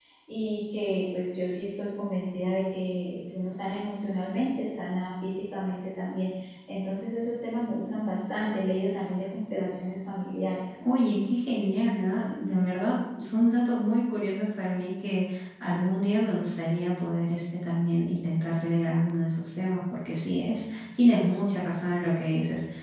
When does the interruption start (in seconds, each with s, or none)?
none